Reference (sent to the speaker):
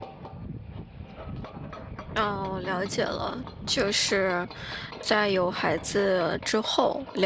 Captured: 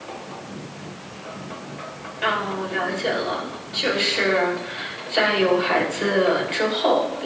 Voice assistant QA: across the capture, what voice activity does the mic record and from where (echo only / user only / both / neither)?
echo only